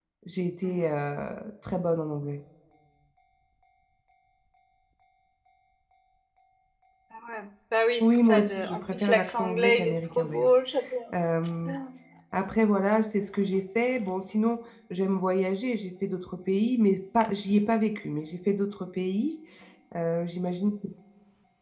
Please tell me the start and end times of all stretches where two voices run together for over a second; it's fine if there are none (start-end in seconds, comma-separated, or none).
8.0-10.5